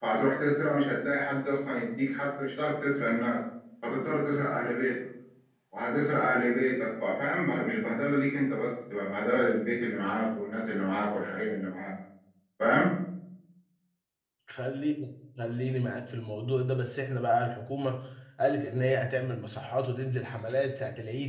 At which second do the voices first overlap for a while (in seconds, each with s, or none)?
none